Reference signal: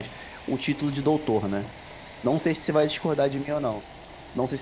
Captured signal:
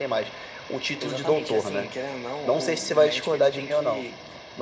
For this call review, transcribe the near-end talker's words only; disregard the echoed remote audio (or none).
Exatamente. E assim, querendo ou não, o, o médico ele tem que